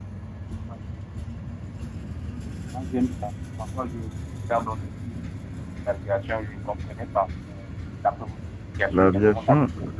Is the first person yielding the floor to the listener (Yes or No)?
Yes